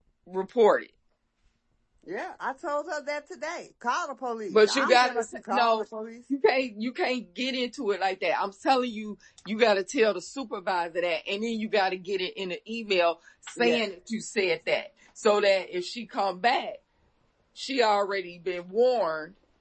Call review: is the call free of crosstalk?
No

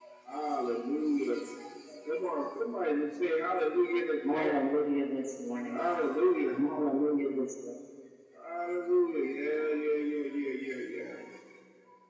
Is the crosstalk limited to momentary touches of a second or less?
Yes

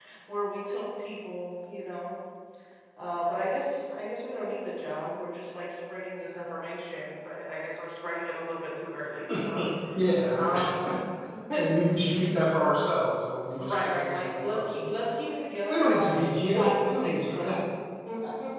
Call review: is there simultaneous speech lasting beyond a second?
Yes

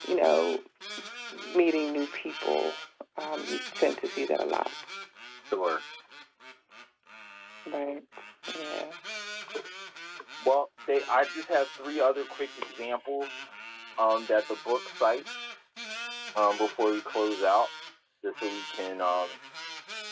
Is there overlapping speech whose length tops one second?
No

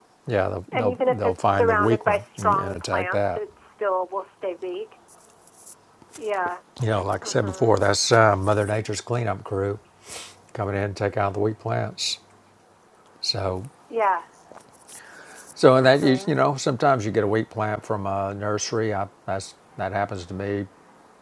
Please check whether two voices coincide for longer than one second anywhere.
Yes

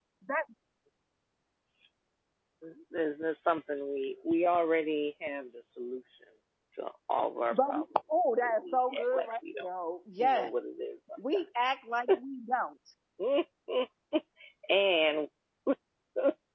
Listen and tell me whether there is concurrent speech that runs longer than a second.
Yes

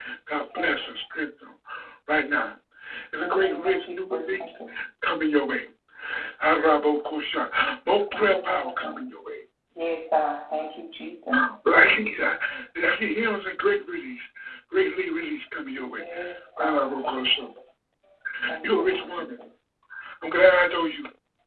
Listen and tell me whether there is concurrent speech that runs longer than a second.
Yes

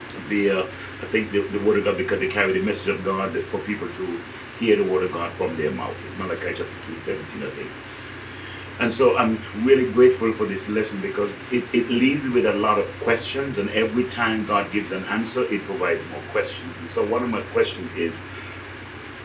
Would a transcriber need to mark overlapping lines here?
No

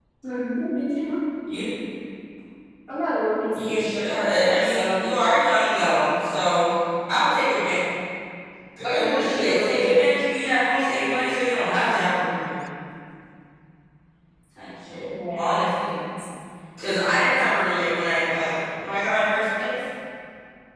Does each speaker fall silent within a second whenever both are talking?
No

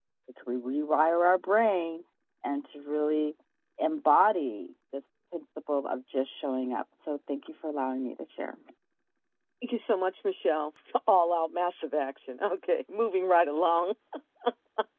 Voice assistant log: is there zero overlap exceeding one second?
Yes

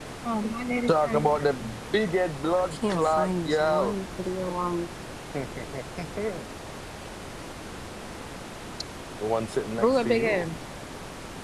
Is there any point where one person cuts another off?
Yes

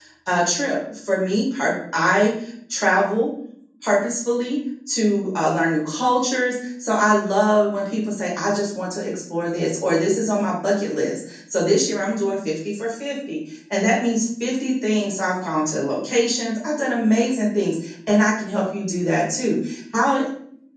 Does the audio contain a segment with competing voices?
No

